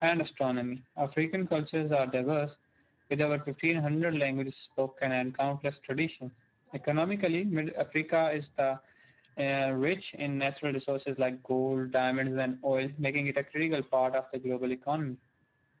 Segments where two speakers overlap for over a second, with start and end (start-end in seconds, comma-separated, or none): none